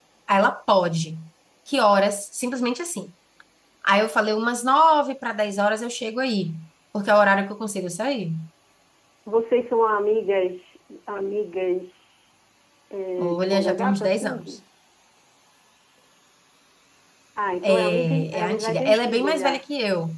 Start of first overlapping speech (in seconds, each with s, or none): 13.2 s